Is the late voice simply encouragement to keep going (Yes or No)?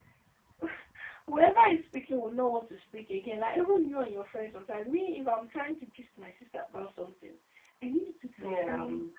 Yes